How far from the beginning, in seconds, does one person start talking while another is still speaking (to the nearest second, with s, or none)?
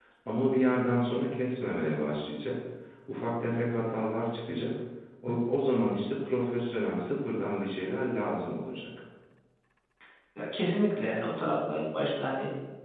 none